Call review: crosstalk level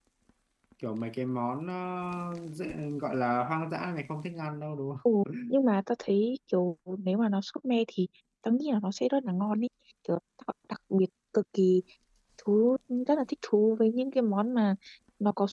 none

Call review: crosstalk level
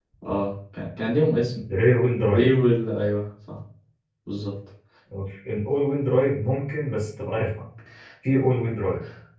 none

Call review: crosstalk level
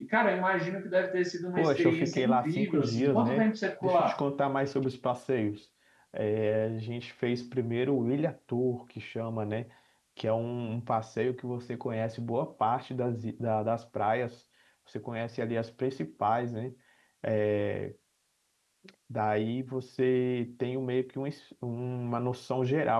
present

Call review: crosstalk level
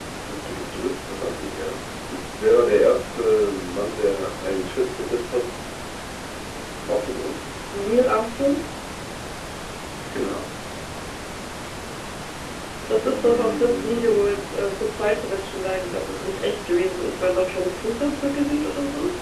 present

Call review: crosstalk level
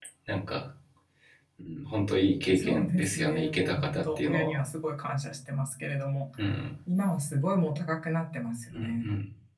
present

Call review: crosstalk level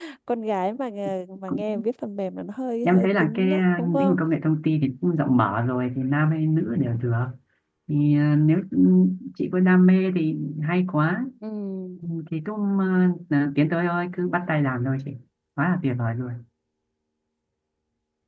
present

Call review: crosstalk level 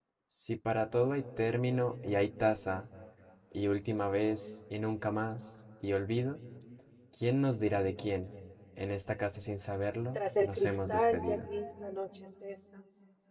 present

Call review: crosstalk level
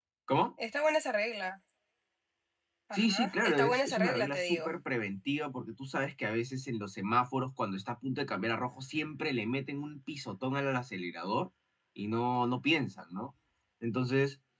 present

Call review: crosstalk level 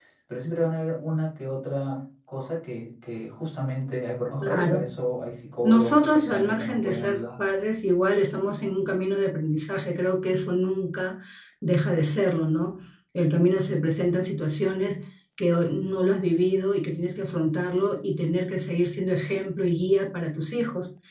present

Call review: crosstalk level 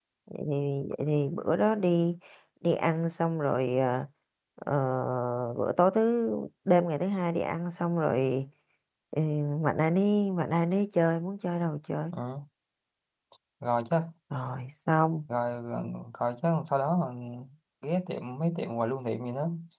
none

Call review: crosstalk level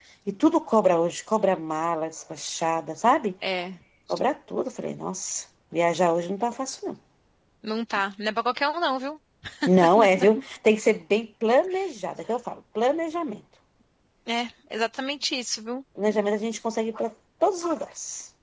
none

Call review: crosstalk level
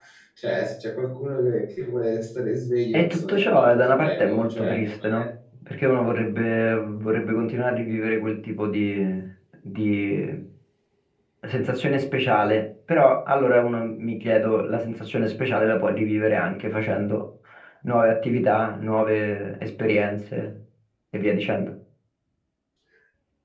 present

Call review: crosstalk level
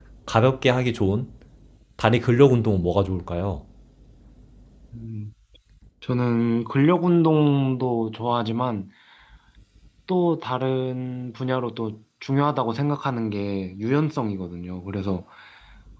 none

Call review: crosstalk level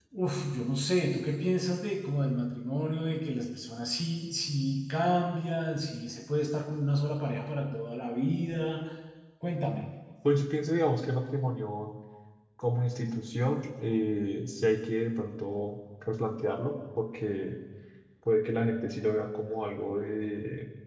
none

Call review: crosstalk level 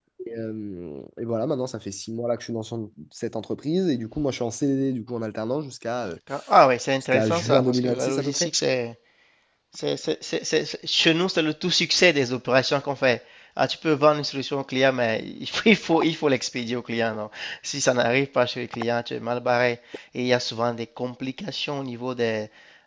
present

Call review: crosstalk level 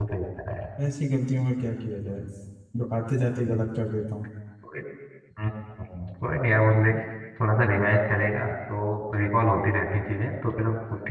none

